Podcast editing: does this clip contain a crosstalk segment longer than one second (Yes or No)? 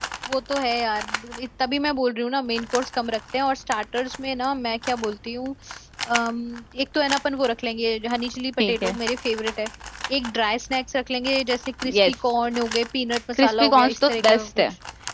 Yes